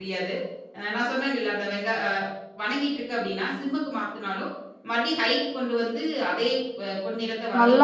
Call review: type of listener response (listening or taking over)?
taking over